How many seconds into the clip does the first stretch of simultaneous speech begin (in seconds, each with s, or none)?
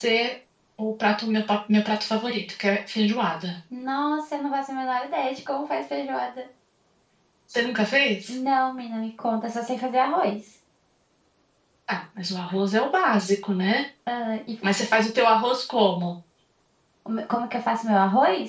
none